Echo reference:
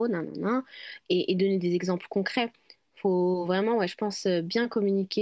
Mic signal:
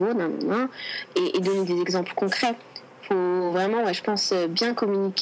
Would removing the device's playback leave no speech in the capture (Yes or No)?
Yes